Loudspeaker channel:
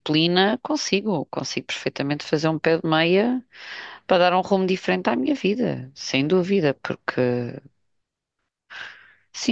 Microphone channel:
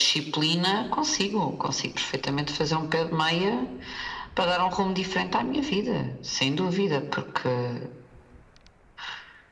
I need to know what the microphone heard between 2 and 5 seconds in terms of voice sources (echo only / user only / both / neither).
echo only